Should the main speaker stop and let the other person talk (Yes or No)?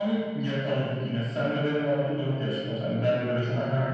No